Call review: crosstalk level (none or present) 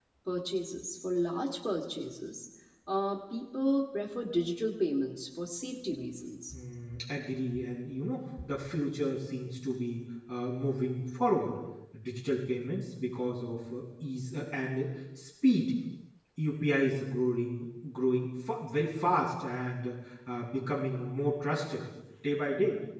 none